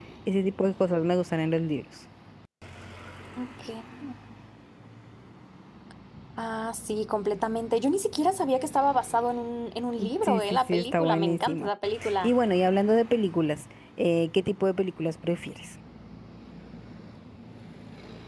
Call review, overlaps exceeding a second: present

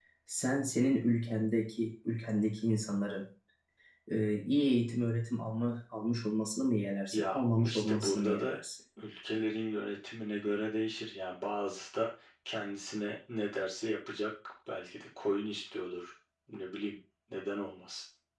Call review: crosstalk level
present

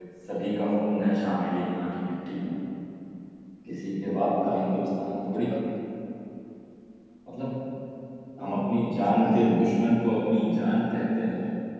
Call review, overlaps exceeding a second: present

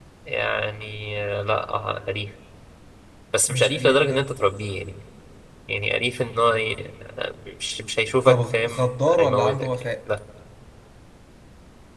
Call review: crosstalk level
present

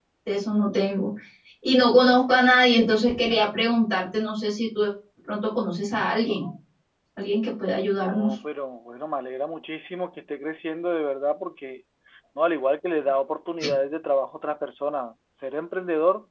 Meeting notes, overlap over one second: none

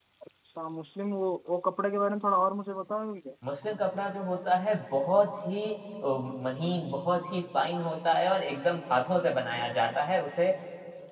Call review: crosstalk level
none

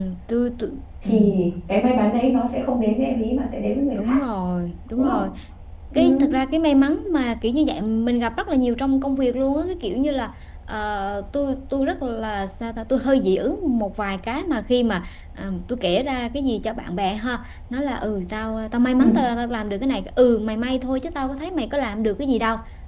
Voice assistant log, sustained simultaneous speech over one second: none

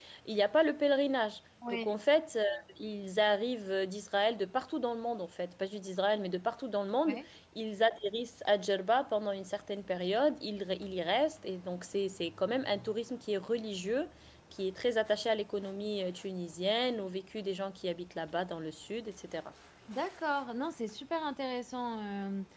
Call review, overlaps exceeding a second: none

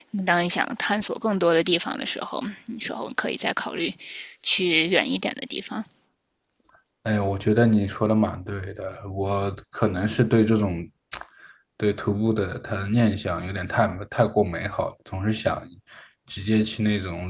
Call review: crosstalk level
none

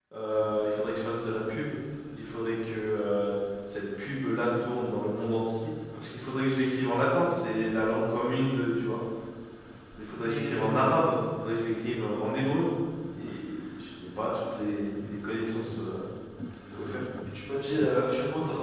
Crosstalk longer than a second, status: none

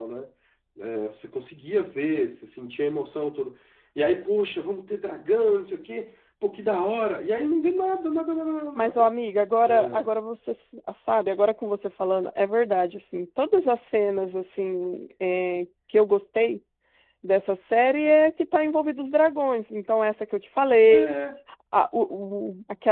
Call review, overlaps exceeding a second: none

